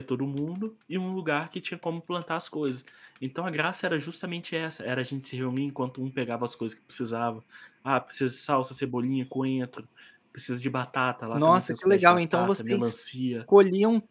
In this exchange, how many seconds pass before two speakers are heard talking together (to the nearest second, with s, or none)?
11 s